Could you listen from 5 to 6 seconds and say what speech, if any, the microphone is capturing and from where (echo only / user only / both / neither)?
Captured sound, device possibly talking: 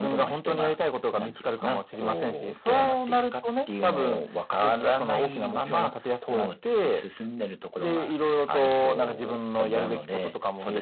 echo only